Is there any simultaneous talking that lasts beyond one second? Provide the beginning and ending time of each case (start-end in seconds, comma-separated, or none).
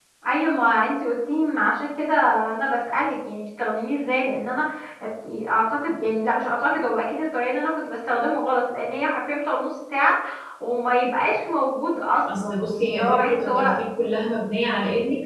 12.3-13.8